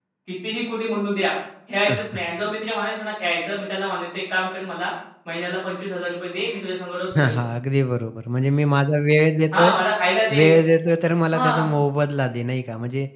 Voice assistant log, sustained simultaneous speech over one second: none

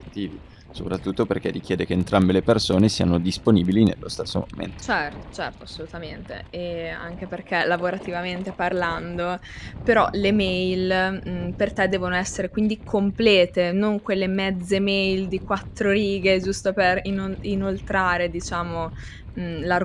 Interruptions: none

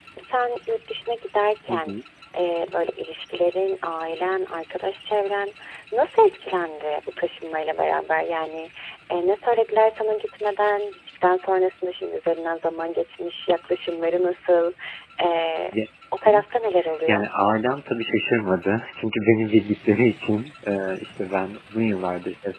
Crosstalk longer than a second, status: none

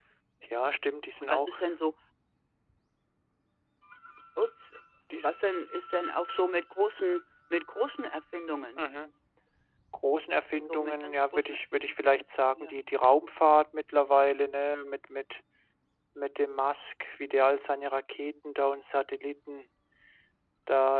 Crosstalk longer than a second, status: present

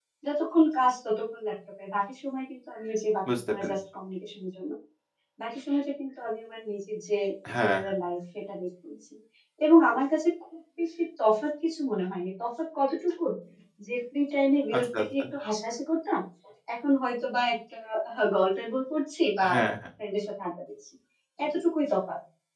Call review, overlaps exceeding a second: none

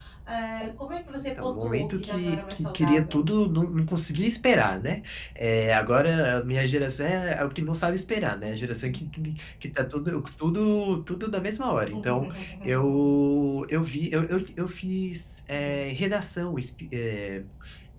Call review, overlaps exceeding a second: present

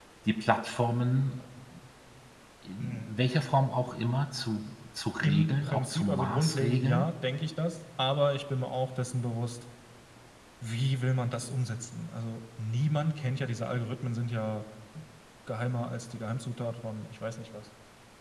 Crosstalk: present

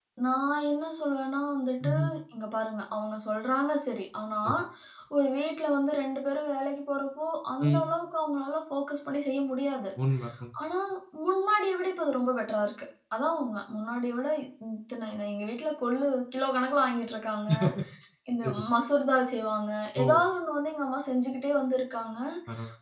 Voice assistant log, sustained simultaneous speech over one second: none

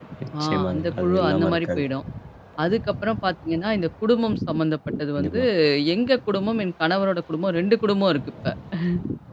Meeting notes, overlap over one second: present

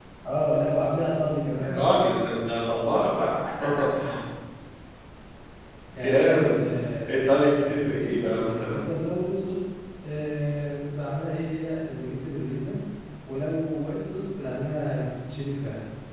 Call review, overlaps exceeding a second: present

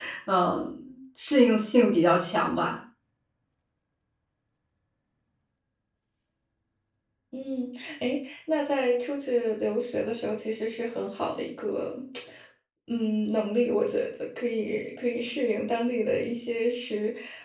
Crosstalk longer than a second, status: none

